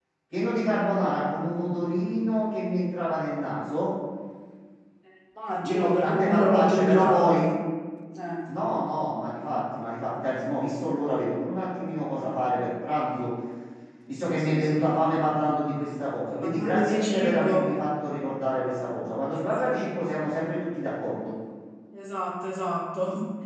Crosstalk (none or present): present